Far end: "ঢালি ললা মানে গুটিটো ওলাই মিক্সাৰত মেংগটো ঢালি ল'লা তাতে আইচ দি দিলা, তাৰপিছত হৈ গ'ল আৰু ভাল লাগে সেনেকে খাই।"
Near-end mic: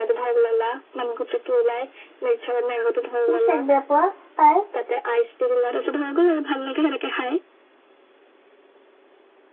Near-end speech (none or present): present